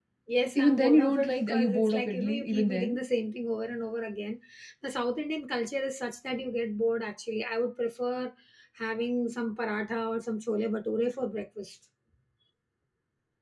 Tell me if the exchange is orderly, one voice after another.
No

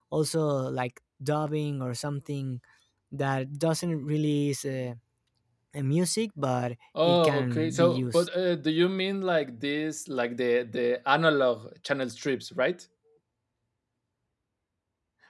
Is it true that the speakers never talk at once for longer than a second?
No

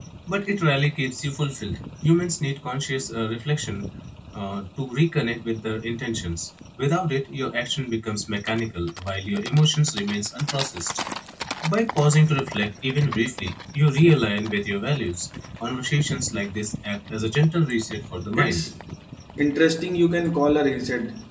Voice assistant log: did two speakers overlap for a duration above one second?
No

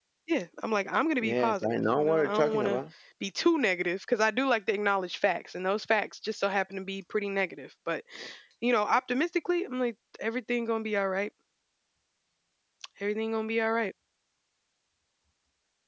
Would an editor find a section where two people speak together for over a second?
Yes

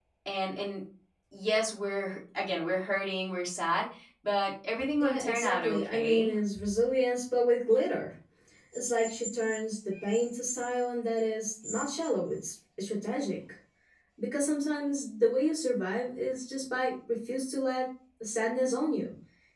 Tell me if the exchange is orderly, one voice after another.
No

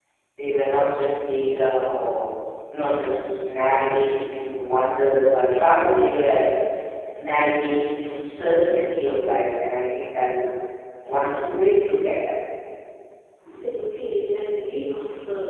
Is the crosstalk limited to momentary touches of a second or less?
Yes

